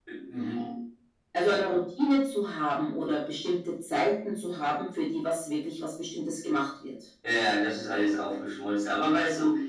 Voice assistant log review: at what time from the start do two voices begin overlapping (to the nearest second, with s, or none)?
none